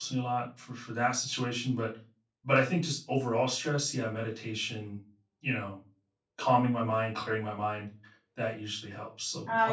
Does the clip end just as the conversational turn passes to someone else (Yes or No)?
Yes